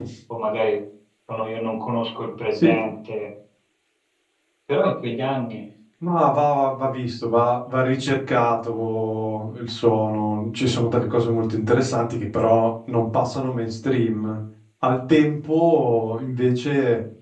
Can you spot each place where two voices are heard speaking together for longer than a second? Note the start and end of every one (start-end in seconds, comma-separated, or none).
none